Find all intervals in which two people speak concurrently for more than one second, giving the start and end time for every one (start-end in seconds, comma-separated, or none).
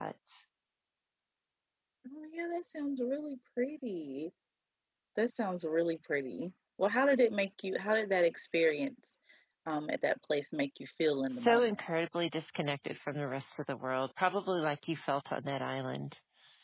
none